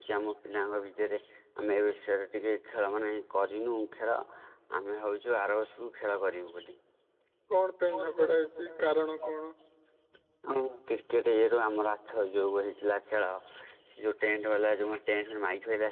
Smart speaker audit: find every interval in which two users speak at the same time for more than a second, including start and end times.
none

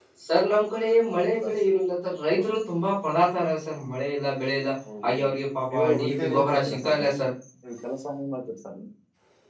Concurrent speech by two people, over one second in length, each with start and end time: 5.7-7.1

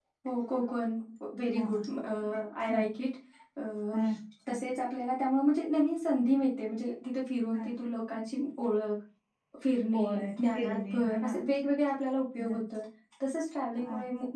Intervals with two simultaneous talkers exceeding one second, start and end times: 9.9-11.3

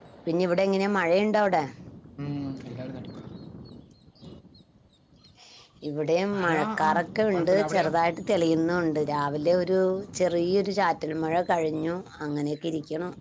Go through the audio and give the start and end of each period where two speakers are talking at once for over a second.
6.3-7.9

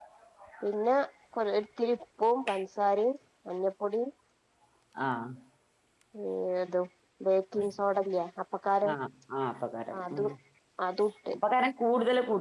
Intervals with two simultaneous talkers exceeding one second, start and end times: none

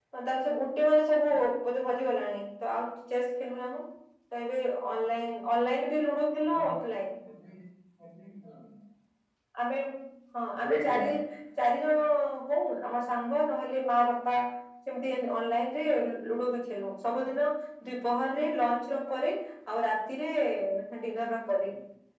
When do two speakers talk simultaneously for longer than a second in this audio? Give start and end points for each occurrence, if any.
none

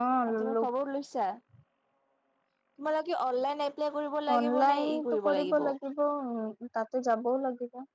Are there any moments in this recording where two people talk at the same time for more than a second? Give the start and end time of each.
4.4-5.7

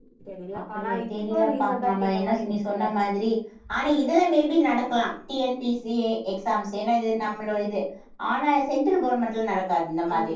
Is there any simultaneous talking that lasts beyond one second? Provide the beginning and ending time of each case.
0.6-3.0

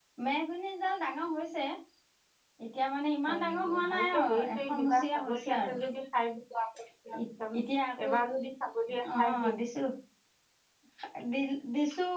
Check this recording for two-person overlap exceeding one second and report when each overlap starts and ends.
3.3-5.8

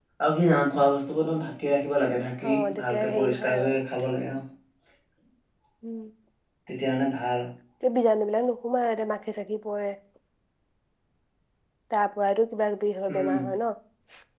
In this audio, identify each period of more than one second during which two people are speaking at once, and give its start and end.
2.5-3.7

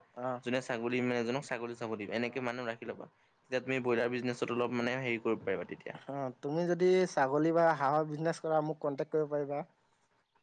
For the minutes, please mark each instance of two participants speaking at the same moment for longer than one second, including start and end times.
none

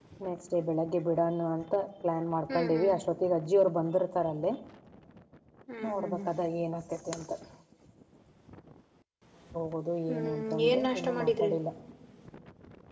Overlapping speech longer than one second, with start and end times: 10.1-11.5

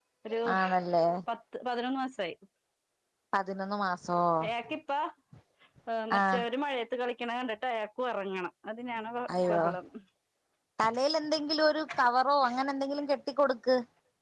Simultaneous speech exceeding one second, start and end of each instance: none

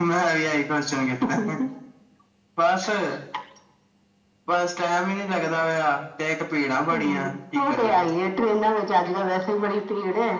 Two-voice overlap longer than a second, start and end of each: none

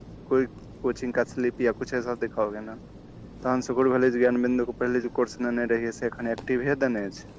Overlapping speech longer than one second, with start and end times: none

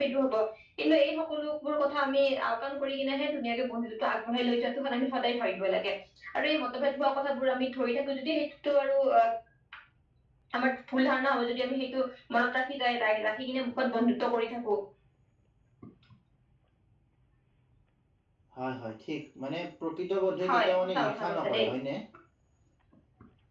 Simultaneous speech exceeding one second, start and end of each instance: 20.4-21.7

